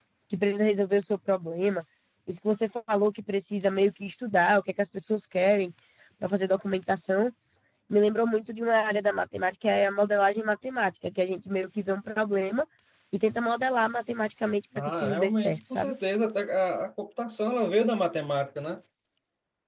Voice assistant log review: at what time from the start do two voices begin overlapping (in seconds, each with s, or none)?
14.8 s